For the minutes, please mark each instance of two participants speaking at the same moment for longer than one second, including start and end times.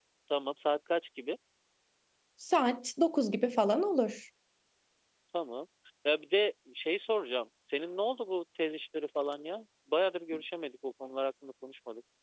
none

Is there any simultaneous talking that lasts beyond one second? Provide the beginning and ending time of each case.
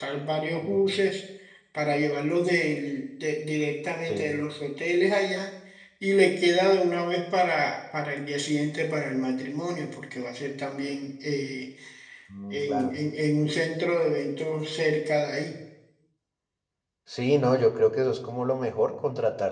none

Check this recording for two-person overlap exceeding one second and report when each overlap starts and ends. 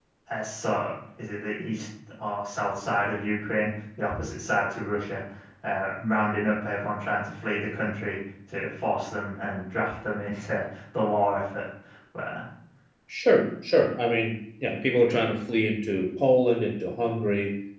none

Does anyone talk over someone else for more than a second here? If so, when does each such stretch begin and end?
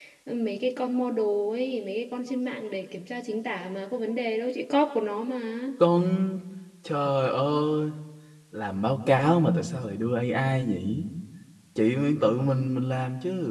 none

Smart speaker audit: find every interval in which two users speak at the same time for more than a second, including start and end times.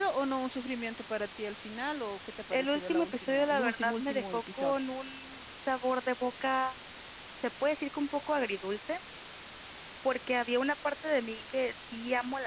2.5-4.8

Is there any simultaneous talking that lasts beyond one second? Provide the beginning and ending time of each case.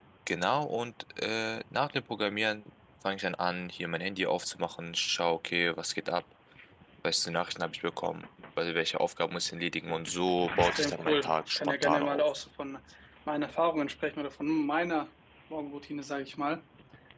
10.6-12.2

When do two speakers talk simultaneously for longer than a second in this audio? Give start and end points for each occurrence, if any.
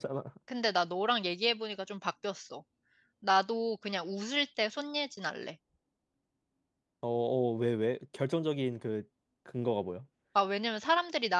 none

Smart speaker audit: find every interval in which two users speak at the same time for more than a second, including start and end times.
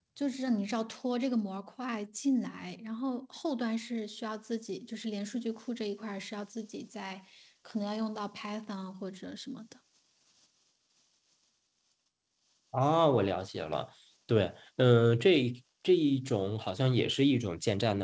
none

